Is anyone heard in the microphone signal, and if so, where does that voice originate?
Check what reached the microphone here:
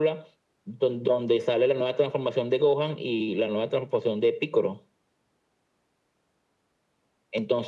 echo only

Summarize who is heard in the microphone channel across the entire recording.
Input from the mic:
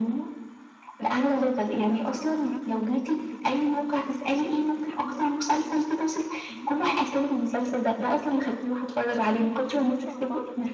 both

